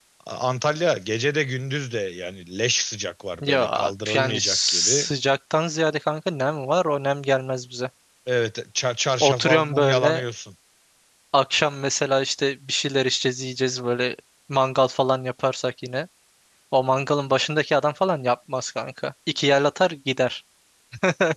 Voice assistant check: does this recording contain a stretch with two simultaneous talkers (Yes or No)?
Yes